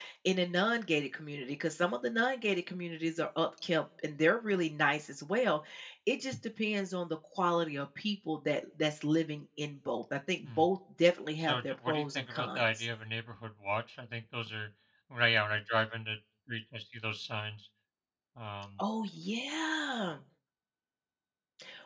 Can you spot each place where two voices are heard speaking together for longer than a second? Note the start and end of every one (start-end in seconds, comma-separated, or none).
11.4-12.8